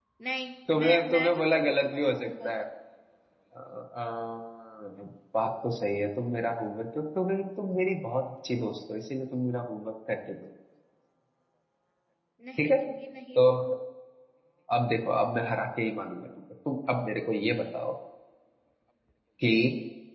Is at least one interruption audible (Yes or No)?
Yes